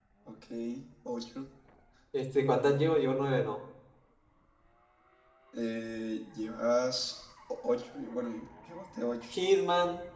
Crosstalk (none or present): none